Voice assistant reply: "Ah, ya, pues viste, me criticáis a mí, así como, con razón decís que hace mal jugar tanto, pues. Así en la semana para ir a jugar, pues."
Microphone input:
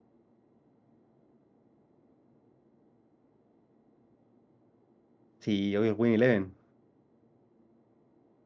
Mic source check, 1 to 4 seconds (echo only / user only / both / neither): neither